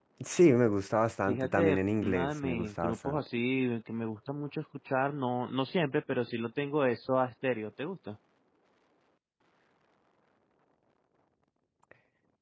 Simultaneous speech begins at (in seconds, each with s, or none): 1.3 s